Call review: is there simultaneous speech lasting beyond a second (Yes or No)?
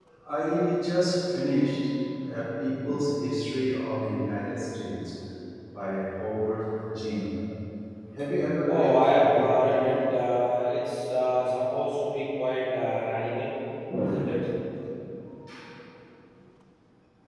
Yes